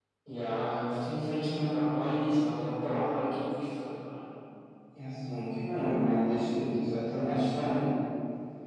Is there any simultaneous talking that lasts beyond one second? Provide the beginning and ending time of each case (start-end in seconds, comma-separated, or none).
none